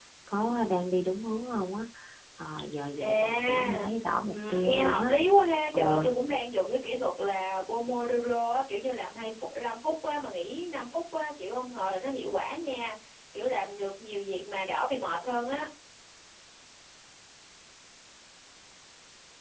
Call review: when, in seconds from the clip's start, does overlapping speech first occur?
3.0 s

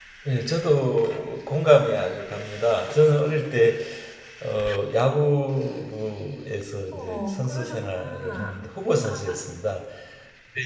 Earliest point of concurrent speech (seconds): 6.9 s

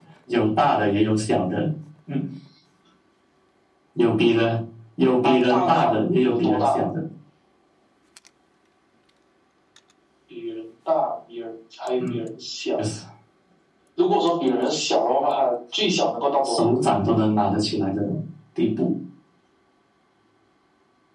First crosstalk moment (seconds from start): 5.2 s

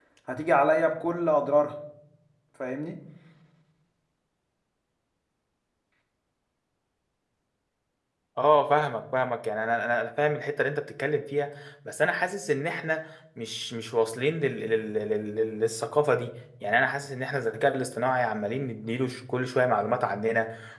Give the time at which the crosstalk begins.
none

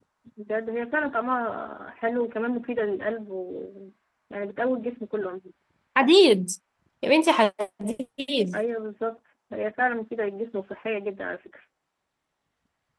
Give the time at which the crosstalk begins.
none

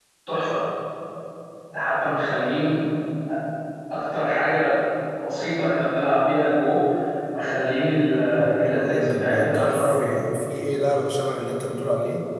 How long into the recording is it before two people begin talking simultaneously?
8.6 s

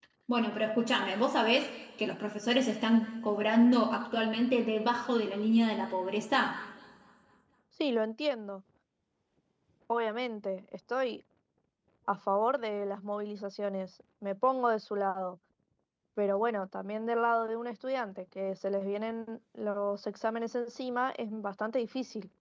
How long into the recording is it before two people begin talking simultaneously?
none

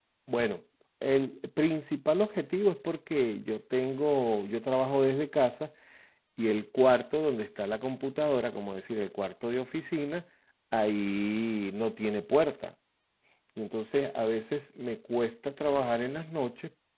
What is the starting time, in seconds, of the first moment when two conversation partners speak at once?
none

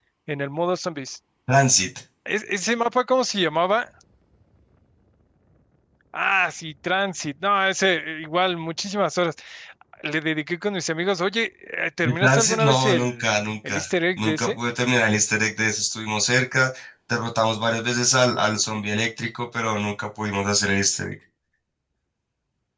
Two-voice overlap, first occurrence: 12.0 s

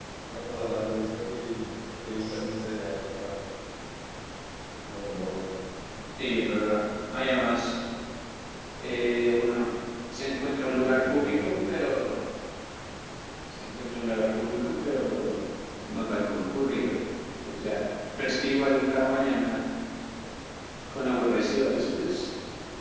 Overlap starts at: 10.6 s

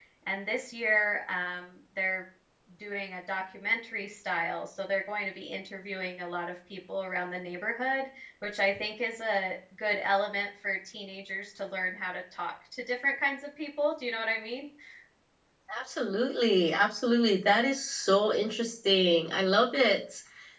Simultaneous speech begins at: none

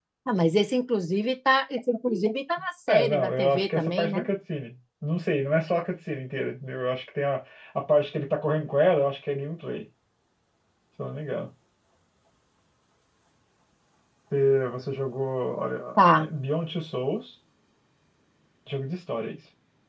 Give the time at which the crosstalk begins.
2.9 s

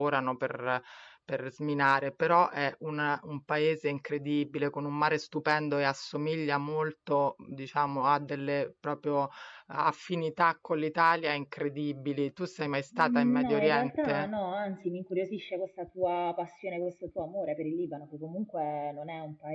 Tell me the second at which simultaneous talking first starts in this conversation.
12.9 s

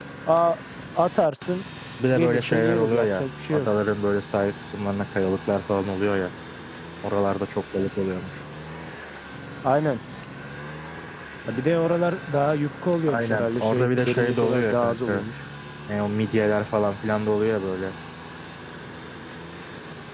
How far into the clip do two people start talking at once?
2.1 s

